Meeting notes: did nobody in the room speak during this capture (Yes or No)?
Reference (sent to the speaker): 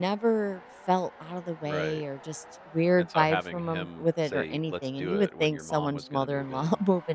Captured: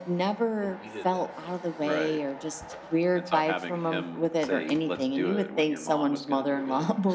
No